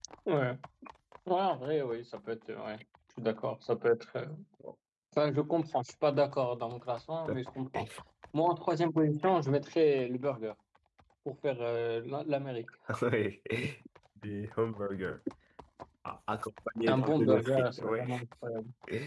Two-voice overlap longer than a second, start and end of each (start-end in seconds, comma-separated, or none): 16.9-18.1